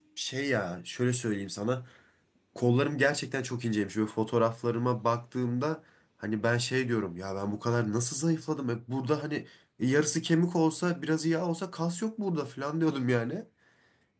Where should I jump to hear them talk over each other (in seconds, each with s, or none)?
none